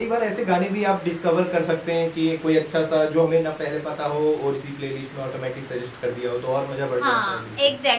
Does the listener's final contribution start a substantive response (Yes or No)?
Yes